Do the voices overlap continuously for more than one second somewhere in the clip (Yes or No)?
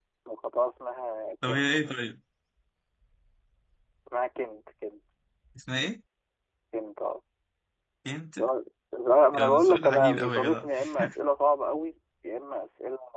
Yes